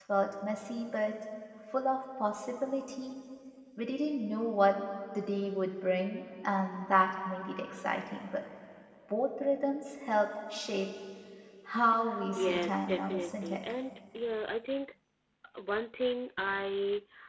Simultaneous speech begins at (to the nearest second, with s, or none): 12 s